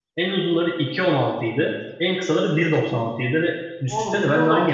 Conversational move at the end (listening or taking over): taking over